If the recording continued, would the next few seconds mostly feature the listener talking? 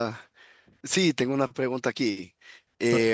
No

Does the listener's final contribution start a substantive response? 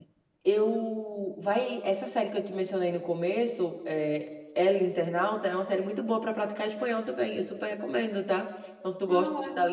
No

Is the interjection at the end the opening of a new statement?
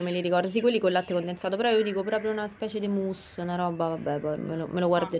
Yes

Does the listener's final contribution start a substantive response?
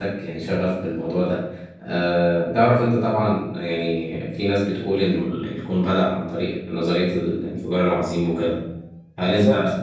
No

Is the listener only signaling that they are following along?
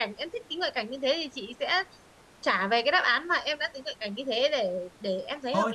No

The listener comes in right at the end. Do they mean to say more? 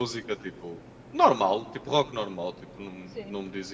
No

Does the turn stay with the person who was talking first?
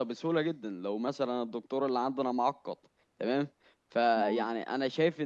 Yes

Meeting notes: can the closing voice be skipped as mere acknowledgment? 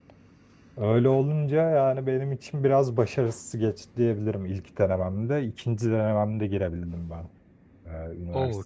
No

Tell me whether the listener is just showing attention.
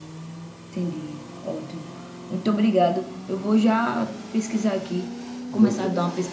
Yes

